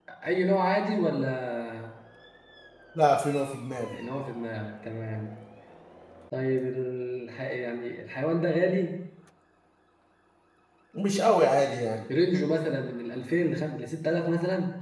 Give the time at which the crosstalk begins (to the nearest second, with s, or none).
none